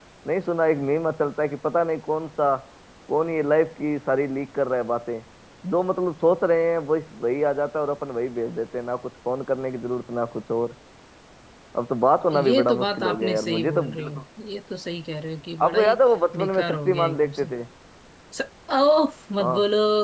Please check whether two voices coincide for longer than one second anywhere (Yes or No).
Yes